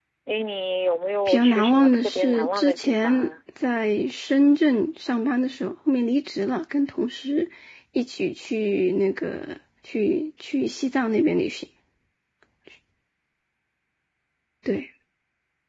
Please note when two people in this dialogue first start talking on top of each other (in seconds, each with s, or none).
1.3 s